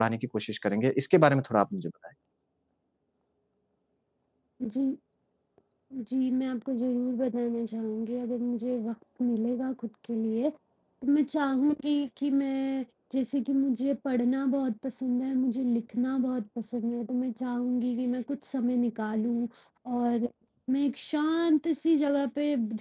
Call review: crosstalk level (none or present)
none